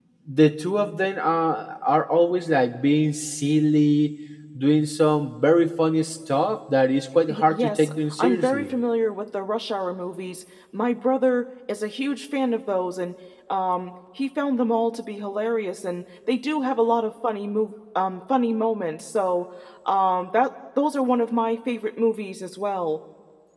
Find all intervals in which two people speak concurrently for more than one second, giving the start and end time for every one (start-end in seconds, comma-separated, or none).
7.5-8.8